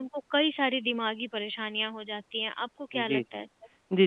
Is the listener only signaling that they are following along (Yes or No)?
No